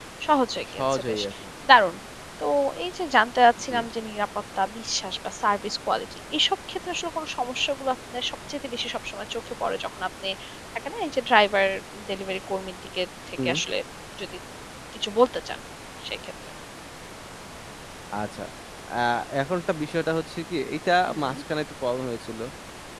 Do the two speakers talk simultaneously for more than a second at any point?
No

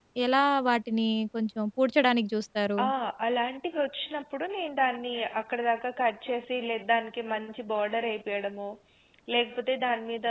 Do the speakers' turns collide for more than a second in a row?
No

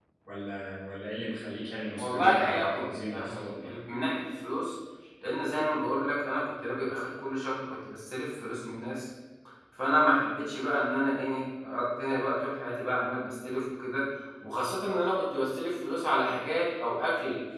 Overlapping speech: Yes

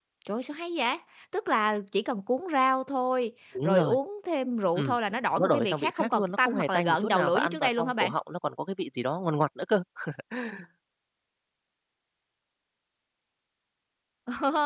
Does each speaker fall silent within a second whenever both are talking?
No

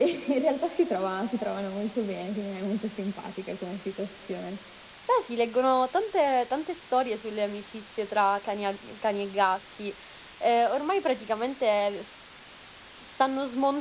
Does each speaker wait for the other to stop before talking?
Yes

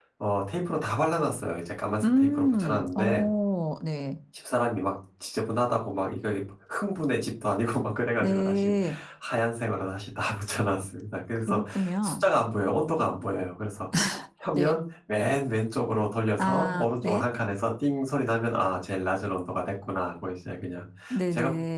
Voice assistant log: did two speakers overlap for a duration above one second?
Yes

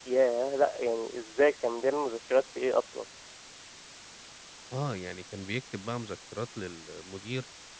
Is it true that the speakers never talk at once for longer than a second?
Yes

